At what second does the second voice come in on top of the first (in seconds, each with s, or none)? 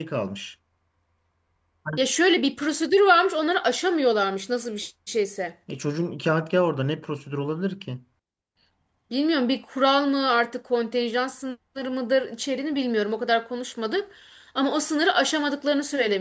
none